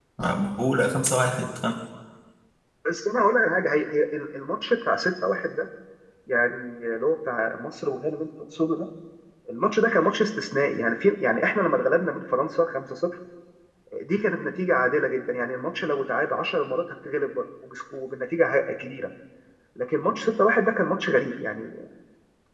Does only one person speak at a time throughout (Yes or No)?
Yes